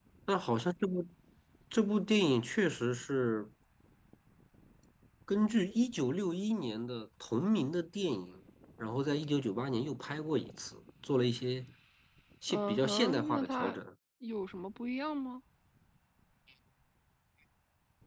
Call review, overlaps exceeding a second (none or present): present